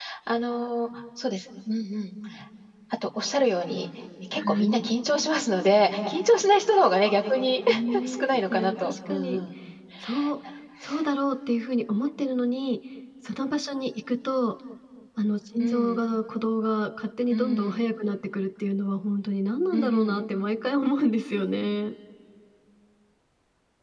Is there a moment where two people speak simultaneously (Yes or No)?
Yes